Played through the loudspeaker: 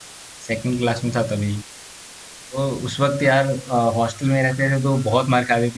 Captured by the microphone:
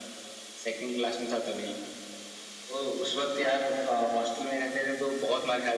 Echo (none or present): present